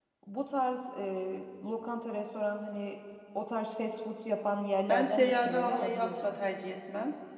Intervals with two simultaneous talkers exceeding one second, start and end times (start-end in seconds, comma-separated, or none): 4.9-6.4